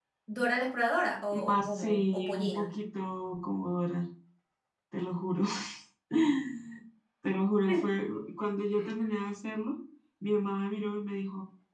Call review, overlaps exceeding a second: present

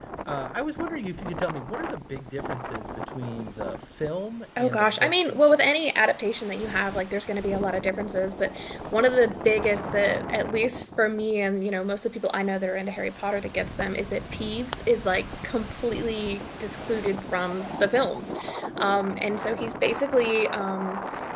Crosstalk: present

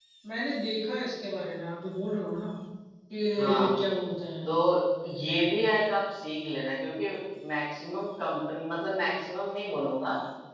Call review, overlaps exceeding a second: none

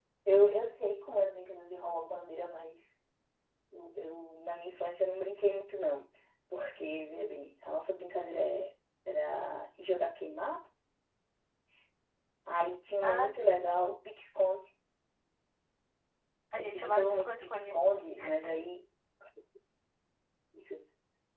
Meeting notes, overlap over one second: present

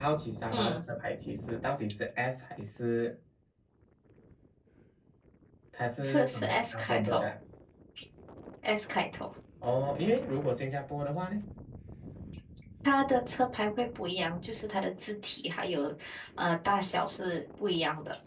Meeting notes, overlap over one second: present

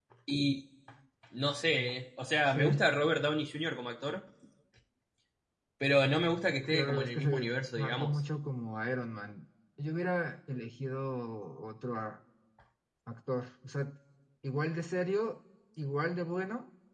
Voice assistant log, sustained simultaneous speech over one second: present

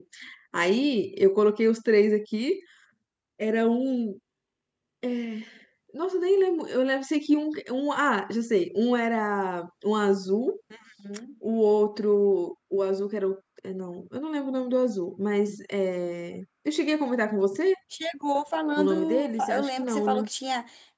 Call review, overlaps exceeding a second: present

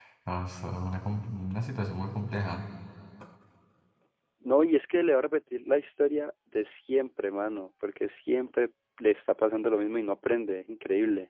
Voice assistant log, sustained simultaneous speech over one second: none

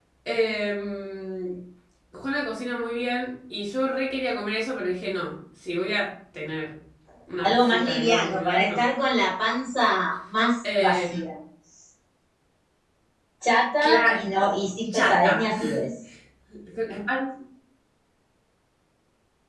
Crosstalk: present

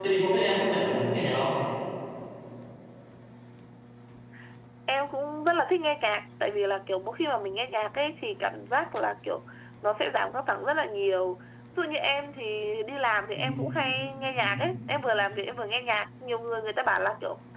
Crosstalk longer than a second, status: none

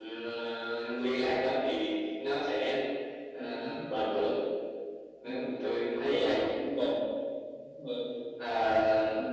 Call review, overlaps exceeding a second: none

